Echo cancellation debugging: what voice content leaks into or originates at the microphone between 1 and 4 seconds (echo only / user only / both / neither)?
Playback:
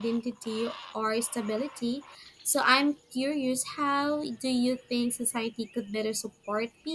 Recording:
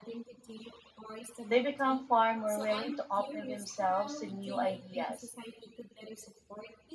both